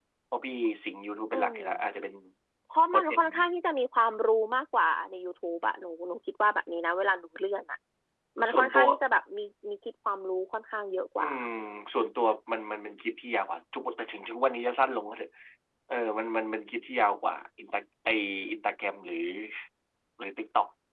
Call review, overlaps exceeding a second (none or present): none